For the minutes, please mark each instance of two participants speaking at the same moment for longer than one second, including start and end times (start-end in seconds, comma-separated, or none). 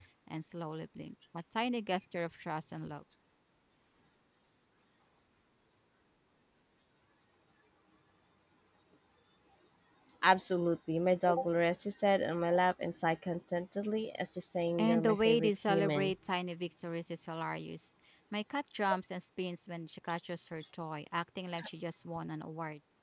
14.8-16.1